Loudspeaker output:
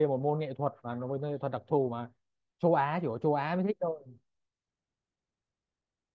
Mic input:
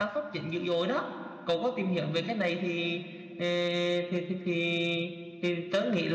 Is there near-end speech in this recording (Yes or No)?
Yes